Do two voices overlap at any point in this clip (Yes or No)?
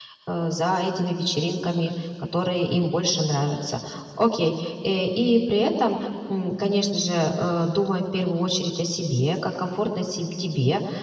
No